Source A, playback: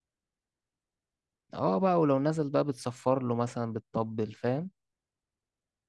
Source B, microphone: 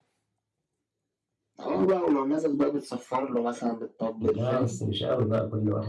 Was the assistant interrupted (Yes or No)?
Yes